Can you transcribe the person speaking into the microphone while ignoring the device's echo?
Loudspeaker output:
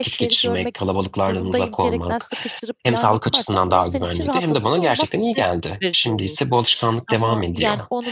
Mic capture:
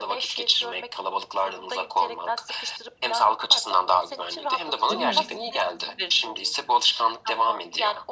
Değil mi?

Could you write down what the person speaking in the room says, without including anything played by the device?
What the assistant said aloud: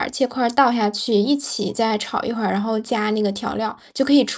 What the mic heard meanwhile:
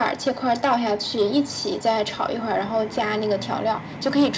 none

